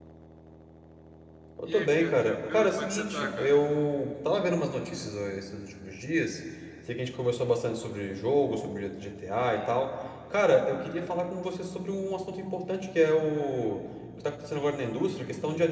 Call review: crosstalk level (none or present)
present